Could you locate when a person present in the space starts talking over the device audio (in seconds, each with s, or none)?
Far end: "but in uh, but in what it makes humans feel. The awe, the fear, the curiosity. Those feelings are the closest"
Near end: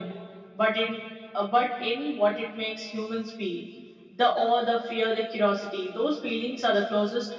none